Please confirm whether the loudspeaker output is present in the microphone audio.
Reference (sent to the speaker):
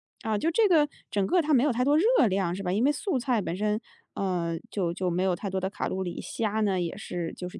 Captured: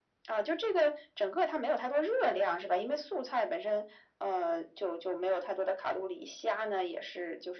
Yes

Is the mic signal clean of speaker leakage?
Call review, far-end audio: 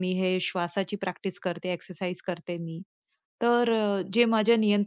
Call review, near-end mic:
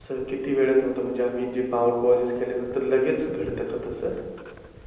Yes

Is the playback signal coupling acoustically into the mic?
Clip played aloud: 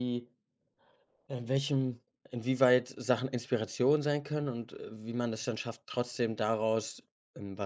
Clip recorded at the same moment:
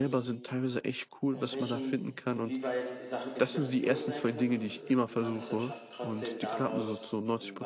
Yes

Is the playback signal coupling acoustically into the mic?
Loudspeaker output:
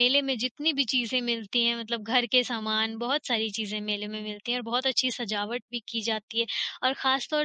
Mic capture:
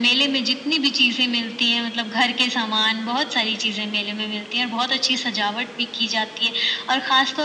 Yes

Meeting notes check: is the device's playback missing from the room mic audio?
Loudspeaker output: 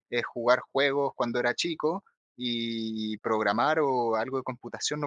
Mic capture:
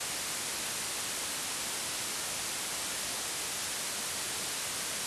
Yes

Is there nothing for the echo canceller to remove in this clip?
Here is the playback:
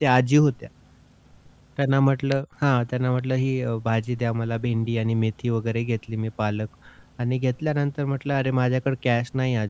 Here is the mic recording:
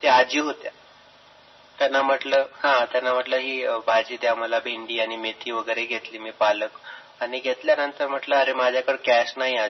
No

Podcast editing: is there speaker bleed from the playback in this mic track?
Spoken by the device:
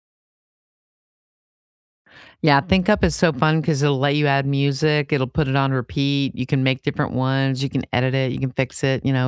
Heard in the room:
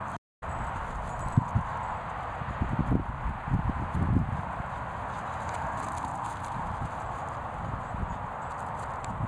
No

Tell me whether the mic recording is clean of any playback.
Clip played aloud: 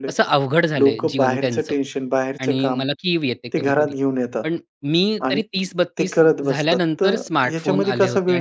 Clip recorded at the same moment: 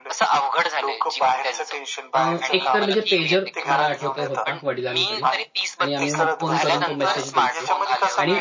No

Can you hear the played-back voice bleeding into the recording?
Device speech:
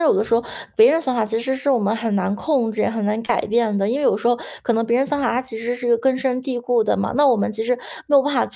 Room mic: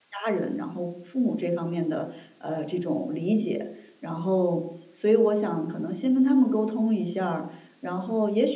No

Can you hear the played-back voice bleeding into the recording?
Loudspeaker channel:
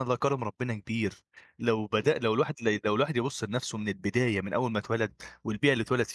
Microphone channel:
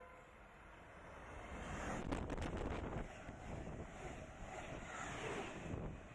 No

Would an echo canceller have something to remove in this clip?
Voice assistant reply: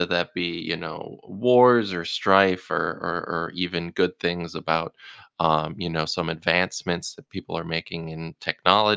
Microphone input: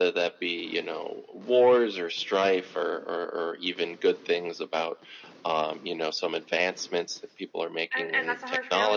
Yes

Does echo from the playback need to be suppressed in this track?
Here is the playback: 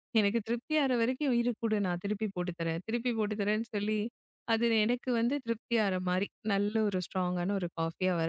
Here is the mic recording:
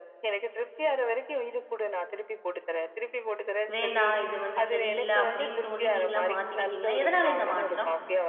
Yes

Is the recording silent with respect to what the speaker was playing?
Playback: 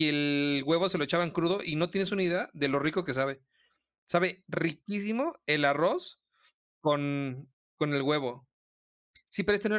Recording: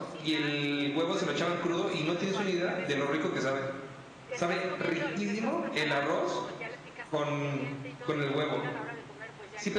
No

